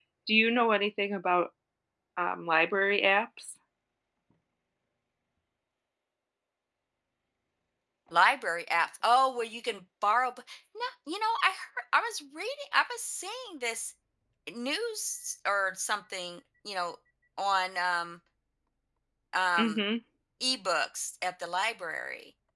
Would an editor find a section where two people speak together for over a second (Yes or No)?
No